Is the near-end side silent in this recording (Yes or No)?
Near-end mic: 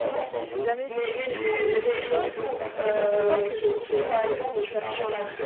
No